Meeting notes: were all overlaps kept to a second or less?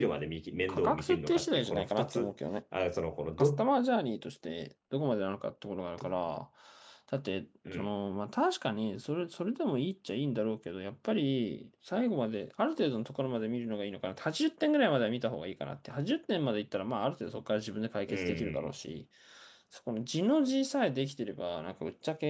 No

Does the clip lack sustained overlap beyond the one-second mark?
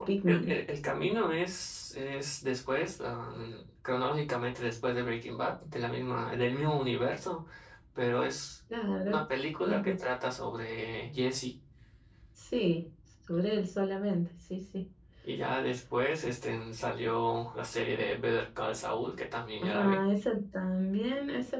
Yes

